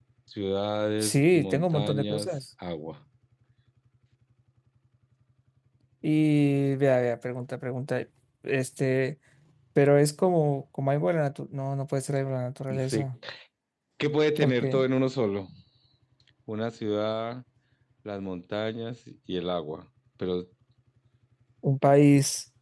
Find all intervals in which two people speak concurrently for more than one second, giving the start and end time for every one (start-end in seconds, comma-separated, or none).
1.0-2.3